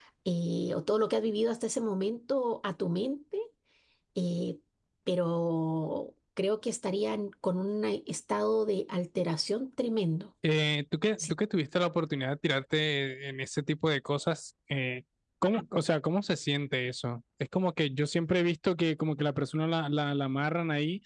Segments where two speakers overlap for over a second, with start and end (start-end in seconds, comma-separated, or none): none